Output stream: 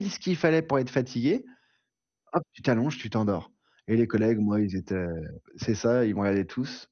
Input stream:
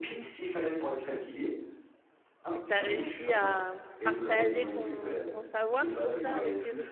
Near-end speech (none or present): present